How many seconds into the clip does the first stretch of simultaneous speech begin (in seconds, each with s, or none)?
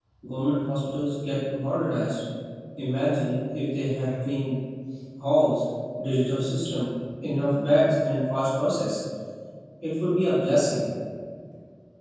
none